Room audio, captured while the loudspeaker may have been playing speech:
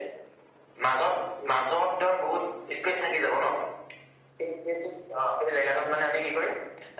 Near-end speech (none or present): none